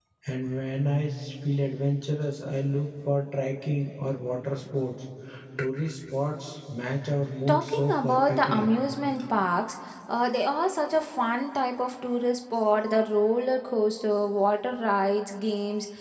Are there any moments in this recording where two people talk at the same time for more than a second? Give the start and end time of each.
7.5-8.7

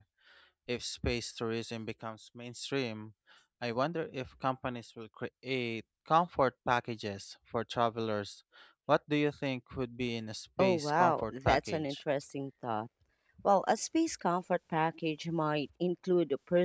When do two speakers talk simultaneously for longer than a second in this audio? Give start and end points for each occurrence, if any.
10.6-11.9

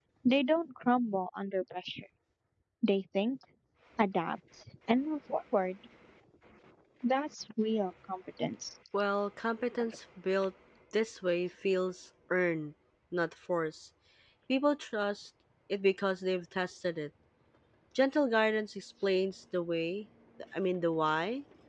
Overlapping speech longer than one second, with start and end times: none

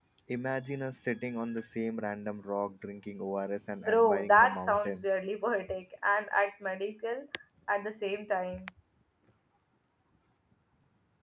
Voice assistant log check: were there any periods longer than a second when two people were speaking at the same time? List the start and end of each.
3.9-5.2

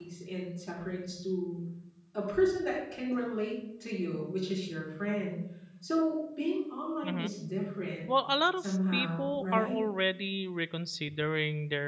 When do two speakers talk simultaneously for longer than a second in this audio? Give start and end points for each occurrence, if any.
8.6-9.8

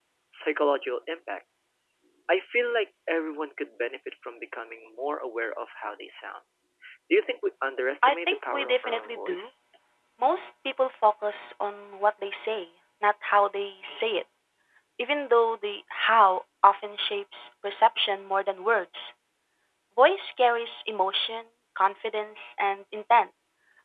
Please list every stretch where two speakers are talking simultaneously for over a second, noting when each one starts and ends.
8.0-9.5

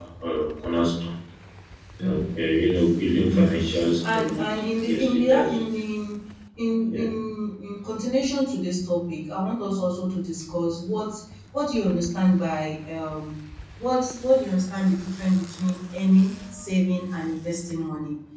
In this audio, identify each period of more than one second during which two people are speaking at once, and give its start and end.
4.0-5.6

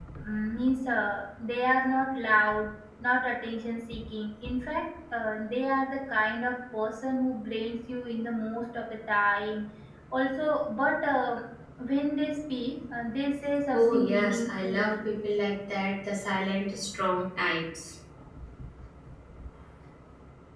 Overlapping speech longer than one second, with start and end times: 13.7-14.9

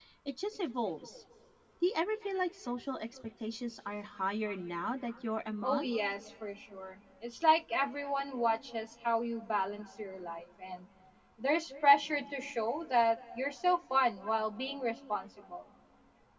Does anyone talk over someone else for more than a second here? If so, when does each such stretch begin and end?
none

